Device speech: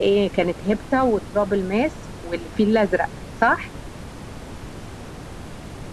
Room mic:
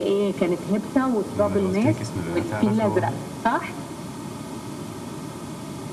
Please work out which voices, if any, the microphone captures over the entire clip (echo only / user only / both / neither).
both